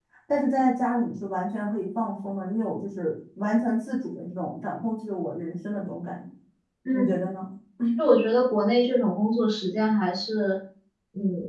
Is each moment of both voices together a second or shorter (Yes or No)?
Yes